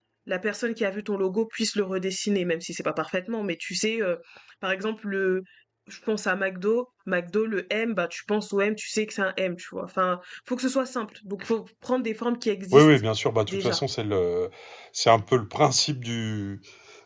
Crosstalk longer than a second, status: none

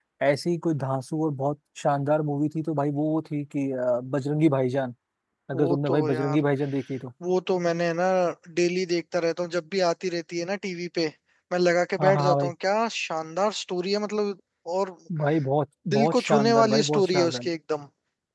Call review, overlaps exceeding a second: present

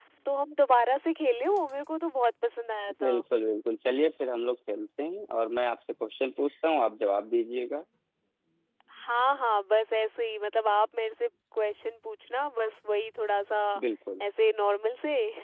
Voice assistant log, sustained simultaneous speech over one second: none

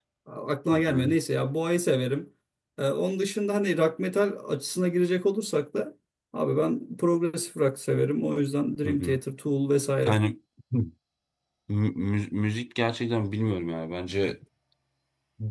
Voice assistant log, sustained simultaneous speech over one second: none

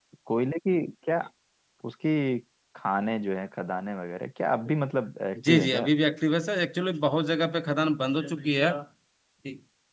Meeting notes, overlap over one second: none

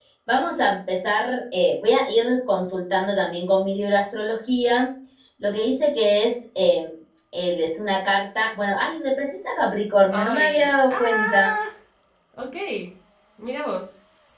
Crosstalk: present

